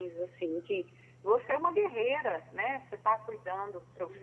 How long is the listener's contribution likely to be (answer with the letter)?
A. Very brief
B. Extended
A